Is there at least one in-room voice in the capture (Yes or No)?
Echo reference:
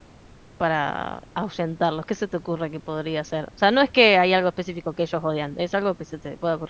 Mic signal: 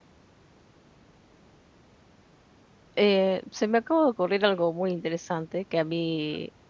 Yes